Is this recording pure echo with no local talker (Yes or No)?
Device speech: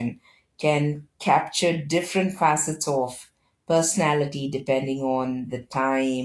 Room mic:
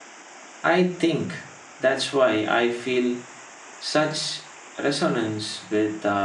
No